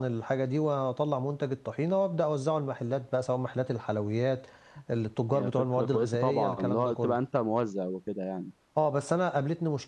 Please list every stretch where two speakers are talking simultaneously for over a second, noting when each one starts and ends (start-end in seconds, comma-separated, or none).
5.3-7.2